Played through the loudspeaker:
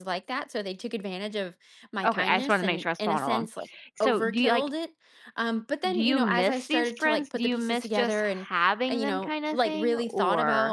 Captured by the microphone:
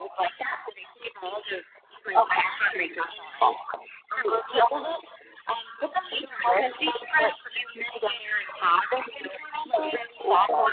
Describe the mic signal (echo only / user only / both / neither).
echo only